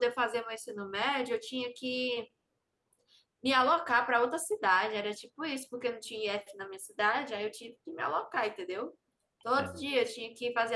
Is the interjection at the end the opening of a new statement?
No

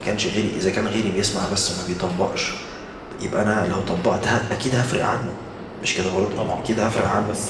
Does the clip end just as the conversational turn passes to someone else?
Yes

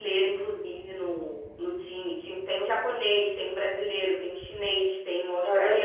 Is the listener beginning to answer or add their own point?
Yes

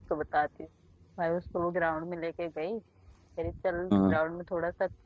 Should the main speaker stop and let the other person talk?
No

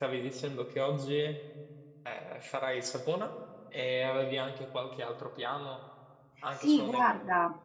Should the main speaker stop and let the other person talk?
Yes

